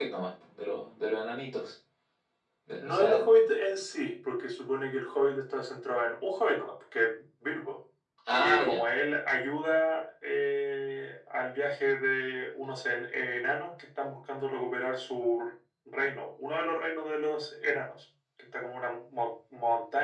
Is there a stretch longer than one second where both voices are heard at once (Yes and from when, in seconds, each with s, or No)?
No